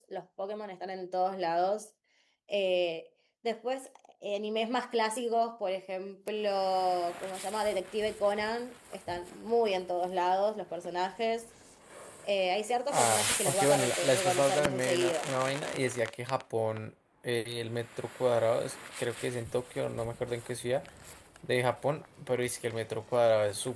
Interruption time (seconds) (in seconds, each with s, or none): 12.9 s